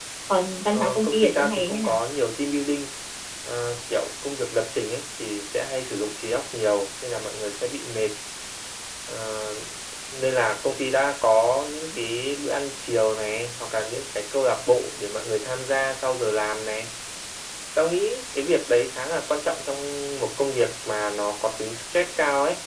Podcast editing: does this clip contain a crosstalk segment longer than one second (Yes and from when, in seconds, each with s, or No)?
Yes, from 0.7 s